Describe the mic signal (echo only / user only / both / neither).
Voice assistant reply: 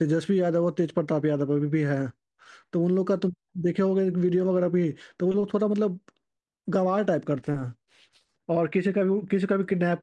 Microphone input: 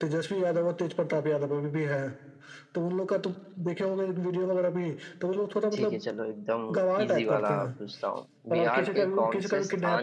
both